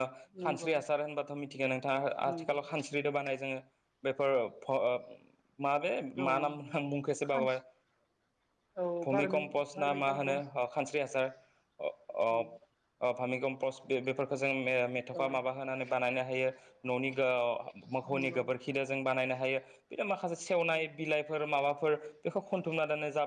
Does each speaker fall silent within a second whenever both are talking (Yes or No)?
No